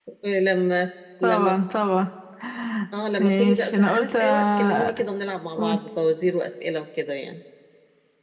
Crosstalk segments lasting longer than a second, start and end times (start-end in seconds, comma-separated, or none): 3.2-5.0